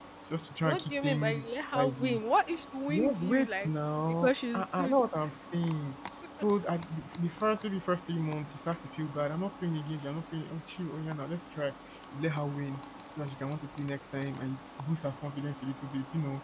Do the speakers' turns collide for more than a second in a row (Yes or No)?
Yes